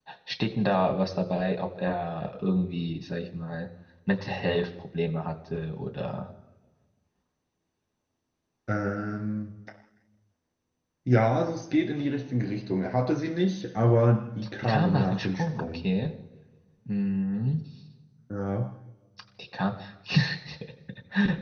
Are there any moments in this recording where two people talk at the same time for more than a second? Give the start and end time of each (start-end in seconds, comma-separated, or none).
14.6-15.8